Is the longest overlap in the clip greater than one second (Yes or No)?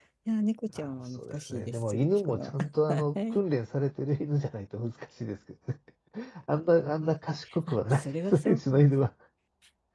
Yes